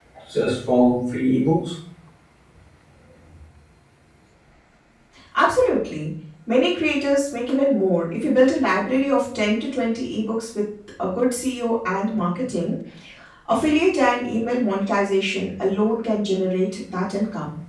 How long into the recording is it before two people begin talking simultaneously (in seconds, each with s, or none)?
none